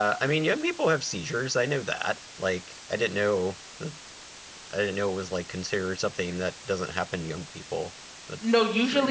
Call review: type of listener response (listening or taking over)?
taking over